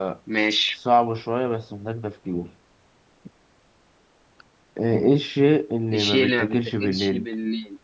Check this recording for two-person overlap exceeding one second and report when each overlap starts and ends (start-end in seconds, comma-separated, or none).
5.9-7.2